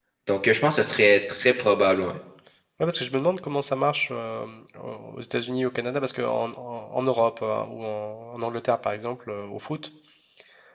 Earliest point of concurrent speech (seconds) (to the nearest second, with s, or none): none